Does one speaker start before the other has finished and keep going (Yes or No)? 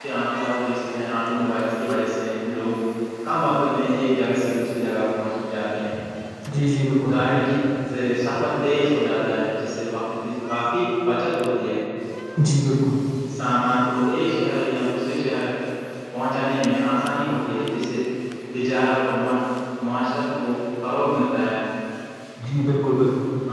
No